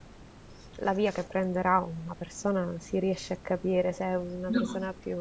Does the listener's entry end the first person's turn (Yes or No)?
No